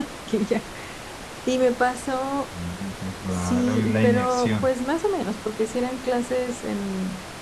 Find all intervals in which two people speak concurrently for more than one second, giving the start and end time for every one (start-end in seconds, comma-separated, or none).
3.3-4.7